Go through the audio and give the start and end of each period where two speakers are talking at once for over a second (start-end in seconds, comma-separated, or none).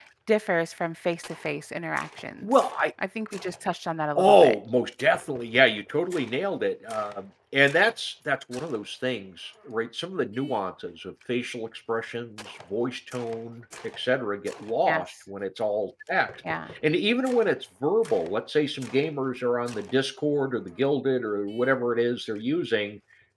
none